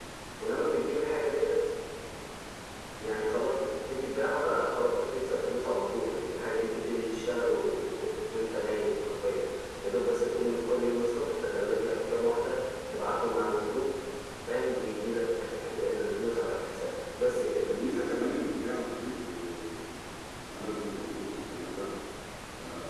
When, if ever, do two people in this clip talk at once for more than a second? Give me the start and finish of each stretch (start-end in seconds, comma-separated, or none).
none